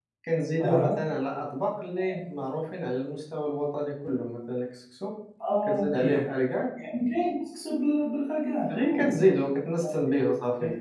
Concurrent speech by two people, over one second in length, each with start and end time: none

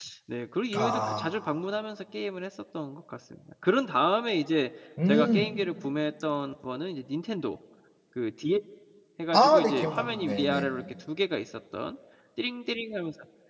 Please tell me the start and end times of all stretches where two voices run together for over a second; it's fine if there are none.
9.3-10.7

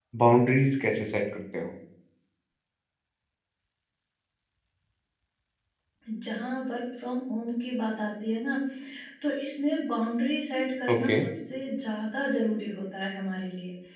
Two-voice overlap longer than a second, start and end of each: none

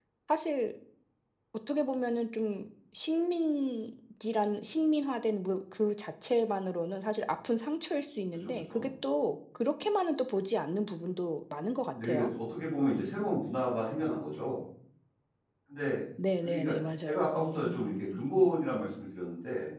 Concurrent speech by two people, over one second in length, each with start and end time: 16.4-18.3

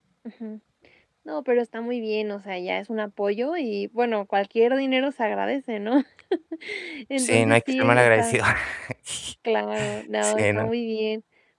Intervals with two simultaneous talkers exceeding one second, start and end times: 7.2-8.4

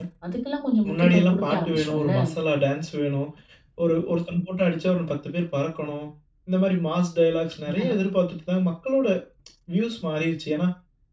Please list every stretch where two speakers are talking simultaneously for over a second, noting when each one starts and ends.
0.9-2.2

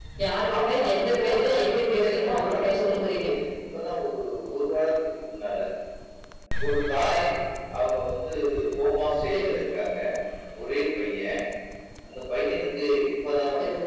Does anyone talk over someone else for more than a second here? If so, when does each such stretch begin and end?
0.6-3.2

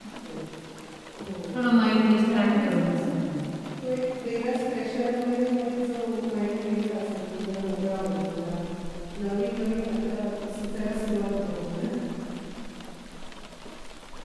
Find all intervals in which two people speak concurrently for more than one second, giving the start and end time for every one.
1.9-3.1

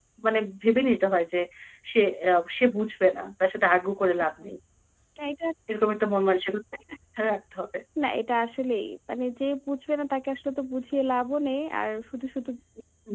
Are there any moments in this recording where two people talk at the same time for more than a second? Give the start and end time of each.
none

